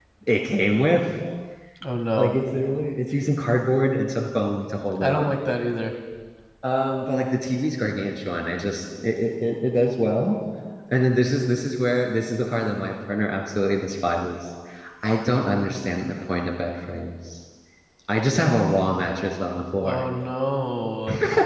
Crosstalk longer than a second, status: none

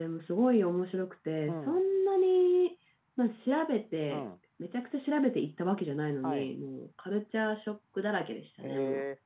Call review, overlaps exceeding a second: none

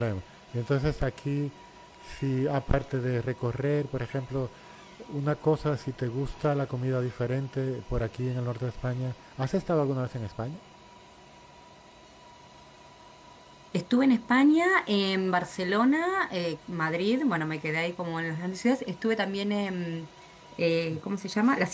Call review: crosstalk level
none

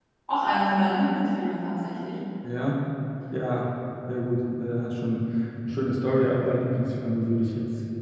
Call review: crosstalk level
none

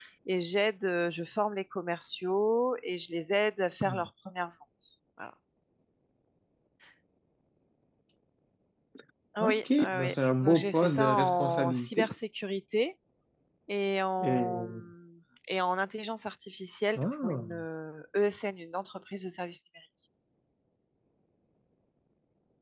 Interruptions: present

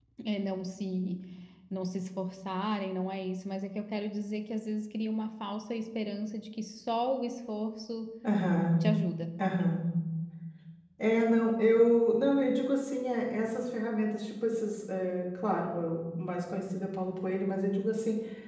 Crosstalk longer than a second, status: none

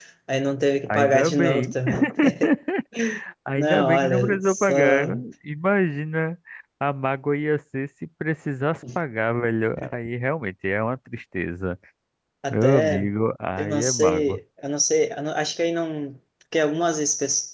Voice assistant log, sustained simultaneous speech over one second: present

